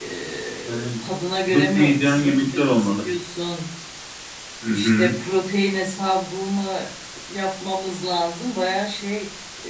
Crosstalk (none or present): present